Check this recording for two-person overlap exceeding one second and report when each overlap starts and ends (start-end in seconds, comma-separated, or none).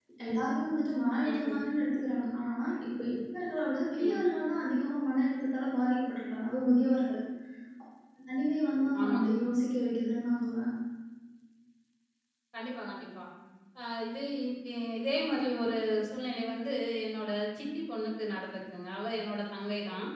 none